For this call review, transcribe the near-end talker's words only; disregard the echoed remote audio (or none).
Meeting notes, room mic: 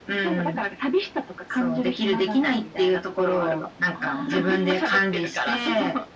ああ、